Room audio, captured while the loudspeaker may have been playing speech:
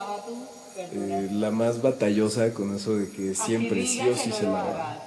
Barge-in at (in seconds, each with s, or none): 0.9 s